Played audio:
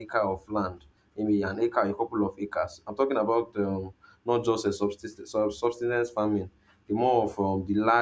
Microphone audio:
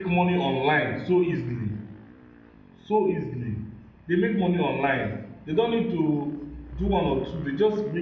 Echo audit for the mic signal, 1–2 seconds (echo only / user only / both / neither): user only